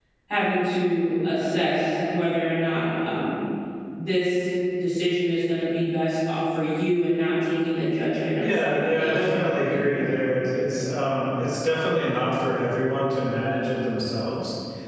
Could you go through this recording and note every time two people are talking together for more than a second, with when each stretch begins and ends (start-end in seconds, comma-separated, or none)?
8.4-10.1